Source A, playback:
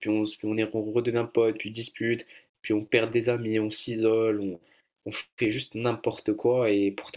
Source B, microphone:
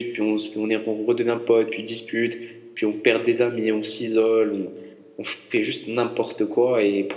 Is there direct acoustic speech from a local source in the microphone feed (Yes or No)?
No